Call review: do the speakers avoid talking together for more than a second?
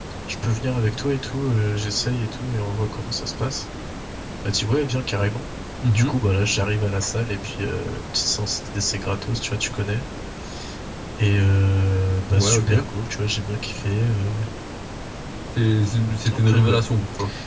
Yes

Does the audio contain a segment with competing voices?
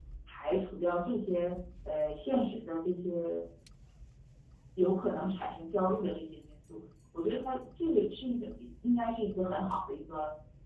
No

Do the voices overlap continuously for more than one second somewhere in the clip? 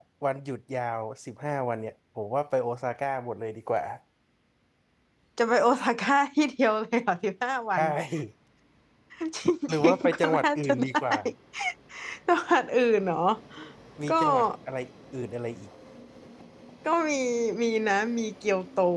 Yes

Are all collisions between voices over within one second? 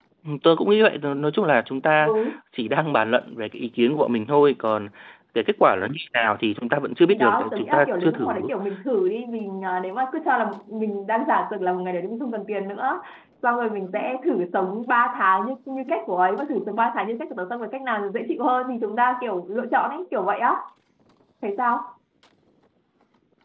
No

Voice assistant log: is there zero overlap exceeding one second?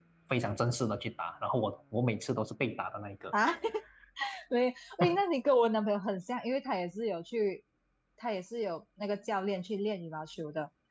Yes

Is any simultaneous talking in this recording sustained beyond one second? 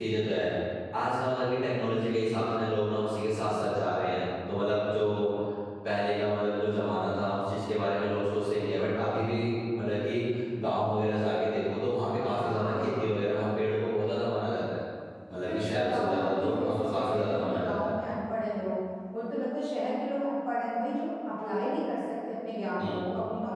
Yes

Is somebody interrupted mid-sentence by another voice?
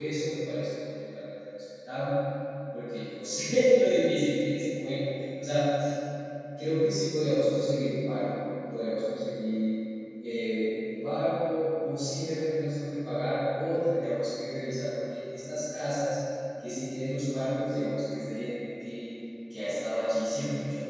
No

